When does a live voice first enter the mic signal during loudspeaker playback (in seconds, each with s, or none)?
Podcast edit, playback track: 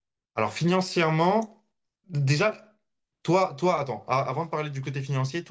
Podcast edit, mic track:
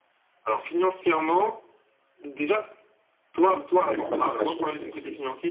3.4 s